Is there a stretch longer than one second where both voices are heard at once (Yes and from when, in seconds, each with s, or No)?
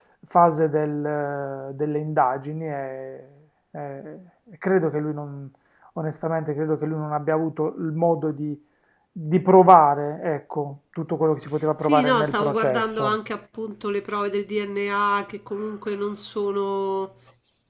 Yes, from 11.8 s